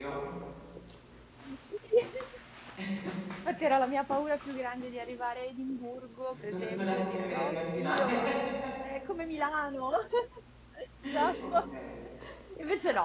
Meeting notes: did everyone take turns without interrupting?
No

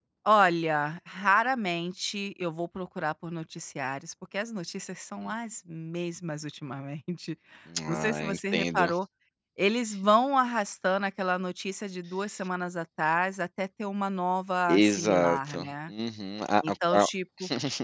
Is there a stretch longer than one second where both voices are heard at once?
Yes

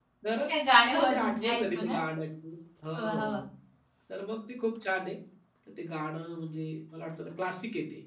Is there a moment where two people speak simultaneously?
Yes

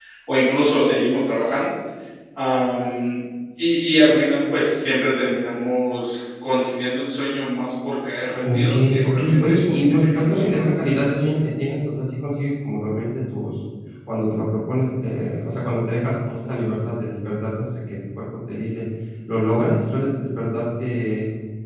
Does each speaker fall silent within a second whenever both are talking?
No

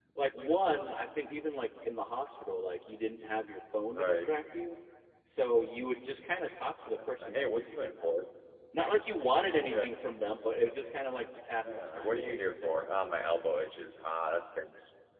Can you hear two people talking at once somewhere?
Yes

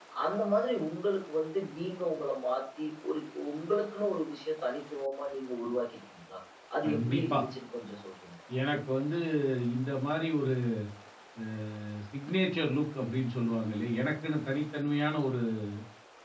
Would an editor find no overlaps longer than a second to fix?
Yes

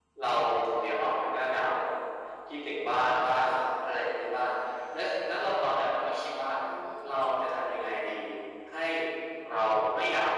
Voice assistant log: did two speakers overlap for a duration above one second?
No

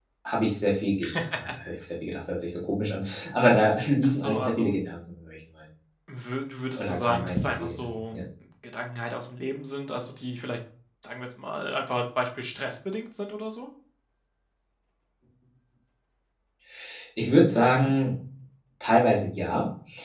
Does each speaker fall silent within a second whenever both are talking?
No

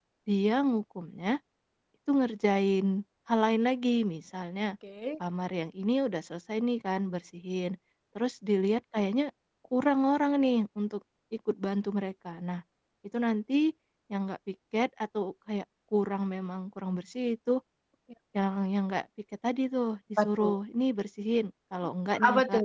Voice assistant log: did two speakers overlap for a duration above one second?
No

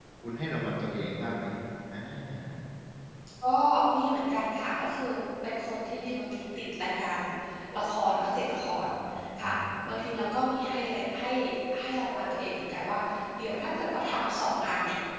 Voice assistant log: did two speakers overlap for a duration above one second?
No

